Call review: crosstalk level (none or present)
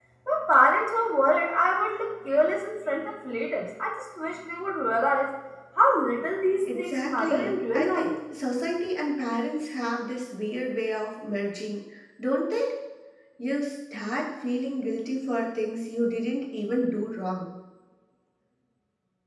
present